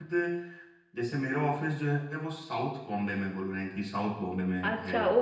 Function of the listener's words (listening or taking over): taking over